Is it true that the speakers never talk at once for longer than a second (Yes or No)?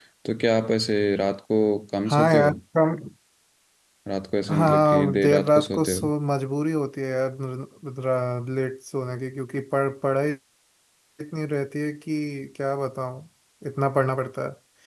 No